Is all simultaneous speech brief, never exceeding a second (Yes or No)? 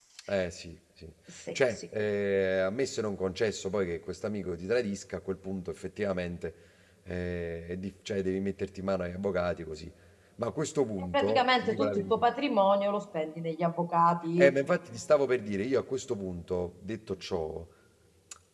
No